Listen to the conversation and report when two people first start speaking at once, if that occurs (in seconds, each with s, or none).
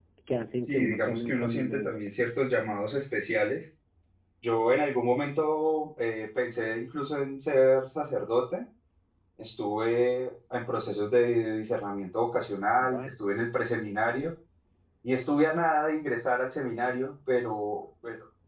0.7 s